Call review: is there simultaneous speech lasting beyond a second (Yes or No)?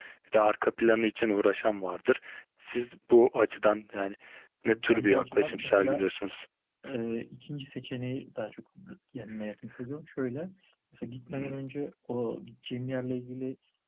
Yes